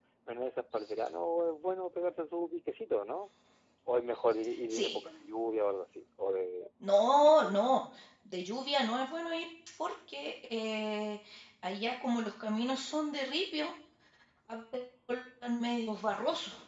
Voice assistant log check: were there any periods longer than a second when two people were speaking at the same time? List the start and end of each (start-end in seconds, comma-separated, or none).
none